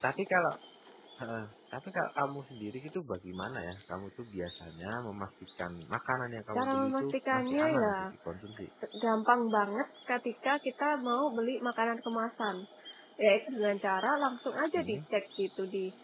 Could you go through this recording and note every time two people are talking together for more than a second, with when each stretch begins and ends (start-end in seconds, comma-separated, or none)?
6.6-7.9